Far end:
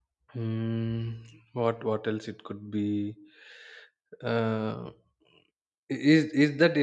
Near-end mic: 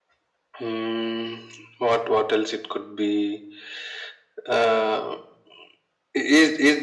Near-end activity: none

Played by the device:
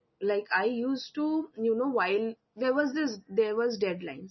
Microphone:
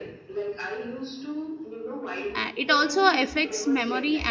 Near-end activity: present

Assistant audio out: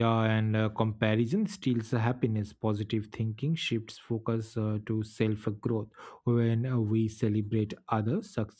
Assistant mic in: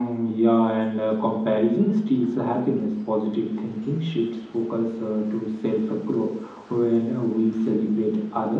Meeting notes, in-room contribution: none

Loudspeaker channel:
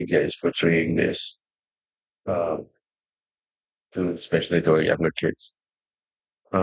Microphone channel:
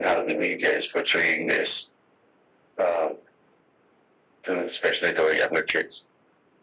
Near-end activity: none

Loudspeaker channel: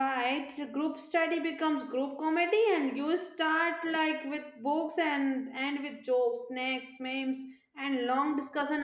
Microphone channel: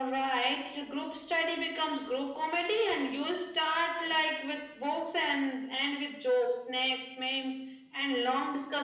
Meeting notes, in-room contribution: none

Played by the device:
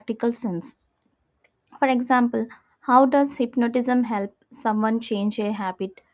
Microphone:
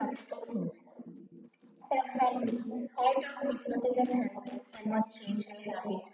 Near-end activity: none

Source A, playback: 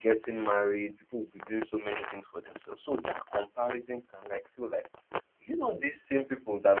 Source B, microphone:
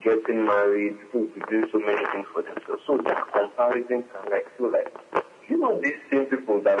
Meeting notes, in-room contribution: none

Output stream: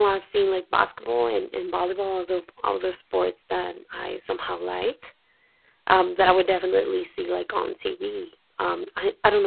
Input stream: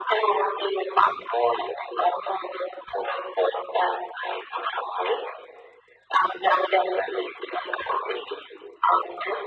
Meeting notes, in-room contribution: none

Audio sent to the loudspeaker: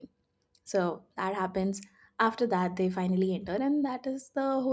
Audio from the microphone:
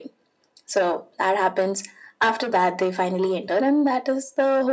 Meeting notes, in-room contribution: none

